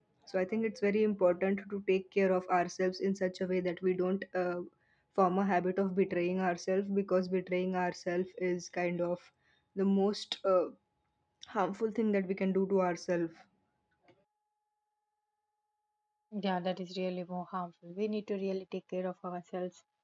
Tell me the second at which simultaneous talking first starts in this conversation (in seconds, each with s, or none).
none